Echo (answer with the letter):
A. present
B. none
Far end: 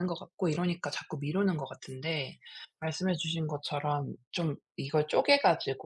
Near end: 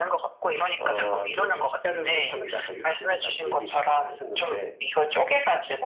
A